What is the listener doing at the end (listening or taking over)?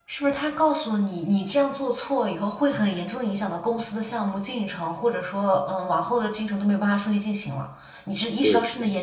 listening